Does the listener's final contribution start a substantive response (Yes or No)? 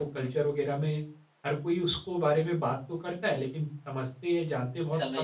Yes